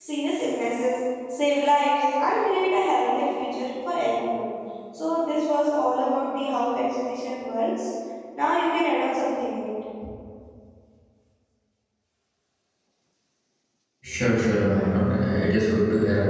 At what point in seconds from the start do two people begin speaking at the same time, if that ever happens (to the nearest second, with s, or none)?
none